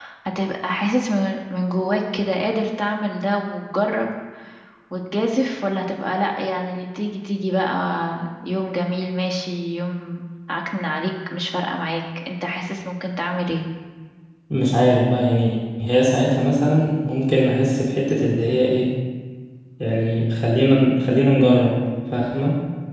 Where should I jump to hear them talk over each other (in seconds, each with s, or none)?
none